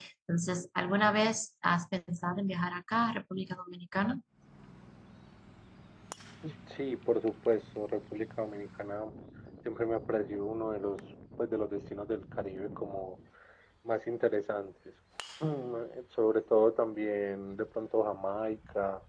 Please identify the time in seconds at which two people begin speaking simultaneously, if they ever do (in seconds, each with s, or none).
none